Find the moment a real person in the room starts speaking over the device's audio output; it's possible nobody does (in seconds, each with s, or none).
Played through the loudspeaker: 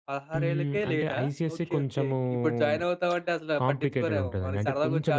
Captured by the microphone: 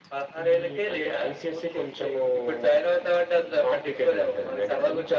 none